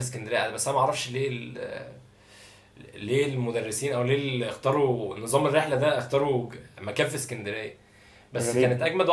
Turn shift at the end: No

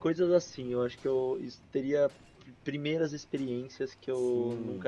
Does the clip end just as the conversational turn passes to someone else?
Yes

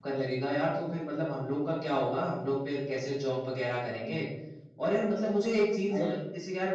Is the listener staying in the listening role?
Yes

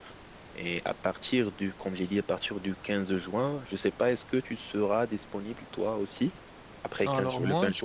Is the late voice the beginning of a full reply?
Yes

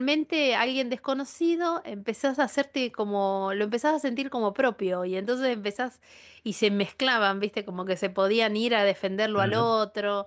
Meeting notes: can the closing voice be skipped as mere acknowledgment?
Yes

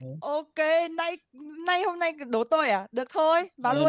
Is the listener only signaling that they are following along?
No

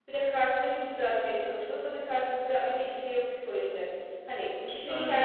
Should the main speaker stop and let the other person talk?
No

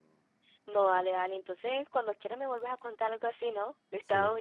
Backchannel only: No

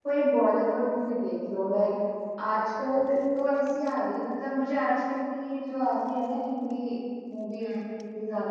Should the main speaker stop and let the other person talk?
No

